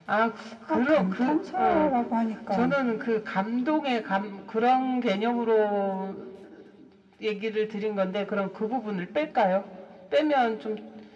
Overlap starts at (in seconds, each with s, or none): 0.7 s